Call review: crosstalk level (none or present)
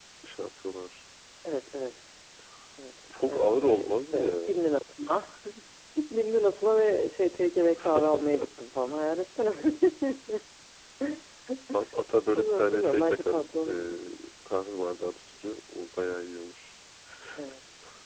present